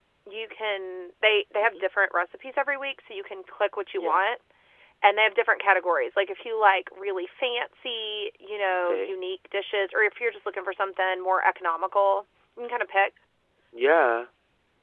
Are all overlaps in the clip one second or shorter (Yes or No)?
Yes